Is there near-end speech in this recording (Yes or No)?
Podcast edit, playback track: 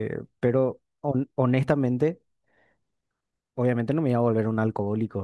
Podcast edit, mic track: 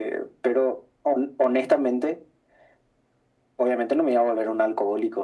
No